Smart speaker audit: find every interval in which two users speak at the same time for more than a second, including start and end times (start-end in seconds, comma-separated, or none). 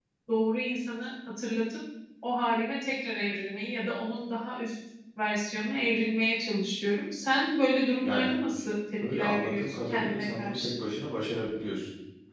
9.1-10.7